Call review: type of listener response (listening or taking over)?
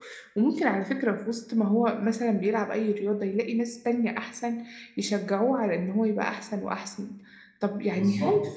listening